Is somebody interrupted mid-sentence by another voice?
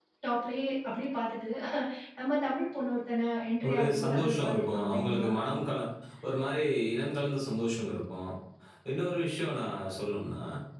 Yes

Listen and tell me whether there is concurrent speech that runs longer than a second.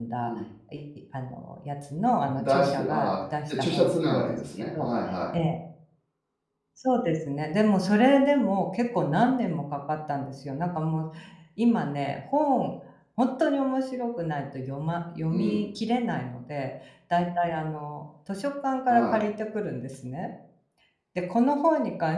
Yes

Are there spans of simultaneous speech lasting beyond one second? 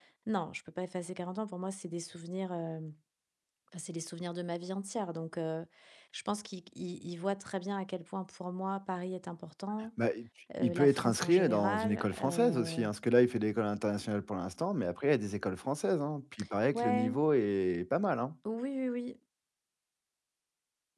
Yes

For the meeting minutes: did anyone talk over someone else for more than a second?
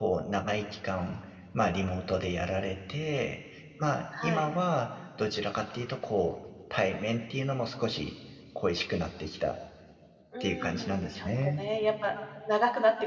Yes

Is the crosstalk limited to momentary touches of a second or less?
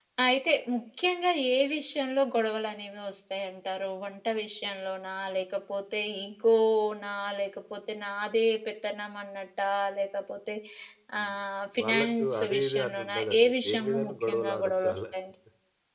No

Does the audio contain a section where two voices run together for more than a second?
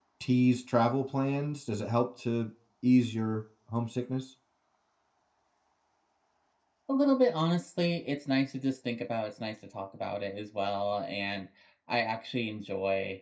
No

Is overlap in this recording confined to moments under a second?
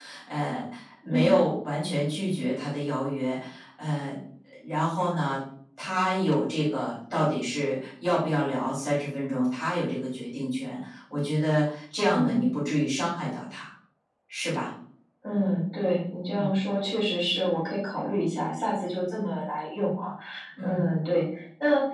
Yes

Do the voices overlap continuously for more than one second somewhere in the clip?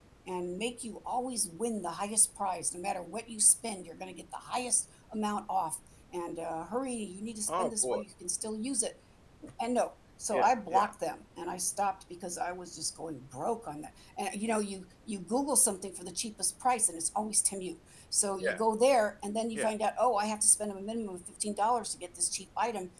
No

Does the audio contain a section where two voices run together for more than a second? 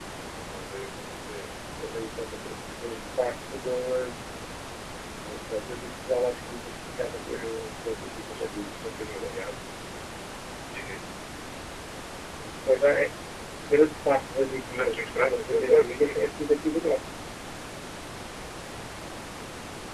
Yes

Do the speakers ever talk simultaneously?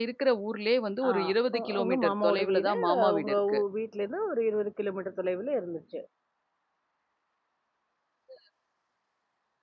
Yes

